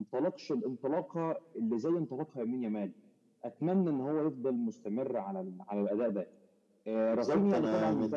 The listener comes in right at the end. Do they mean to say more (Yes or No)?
Yes